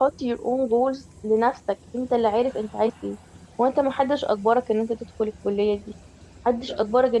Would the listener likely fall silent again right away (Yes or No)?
Yes